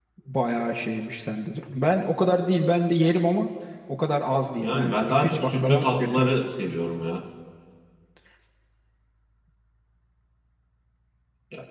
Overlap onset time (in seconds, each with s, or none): 4.6 s